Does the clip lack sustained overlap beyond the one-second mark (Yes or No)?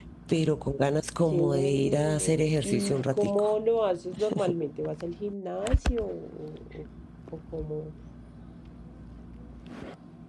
No